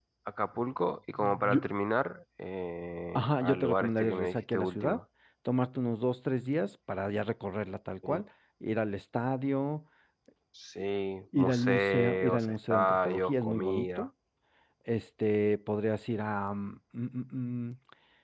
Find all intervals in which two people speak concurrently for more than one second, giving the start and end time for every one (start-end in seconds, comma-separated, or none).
3.2-5.0, 11.4-14.1